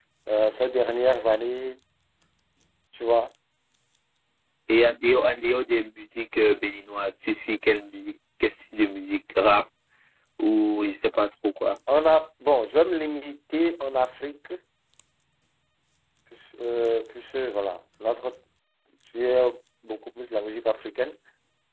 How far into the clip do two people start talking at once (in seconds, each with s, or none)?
none